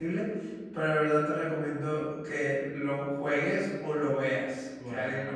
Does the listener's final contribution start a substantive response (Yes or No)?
Yes